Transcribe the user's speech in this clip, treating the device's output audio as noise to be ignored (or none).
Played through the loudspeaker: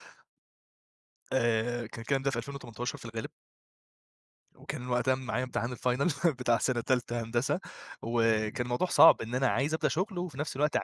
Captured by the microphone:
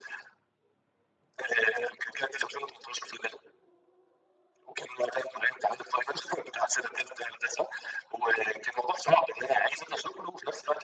none